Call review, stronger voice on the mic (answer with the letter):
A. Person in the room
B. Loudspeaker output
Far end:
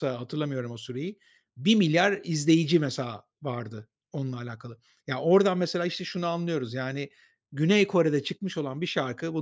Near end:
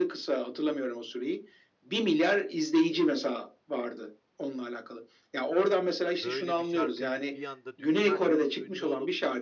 B